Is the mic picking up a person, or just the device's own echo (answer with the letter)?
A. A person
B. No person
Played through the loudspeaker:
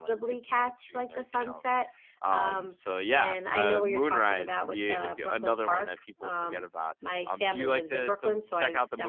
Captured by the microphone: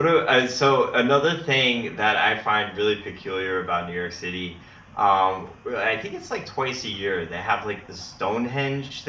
A